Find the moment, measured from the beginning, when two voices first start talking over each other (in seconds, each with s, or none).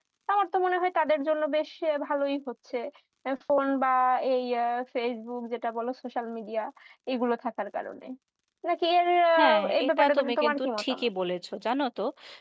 9.4 s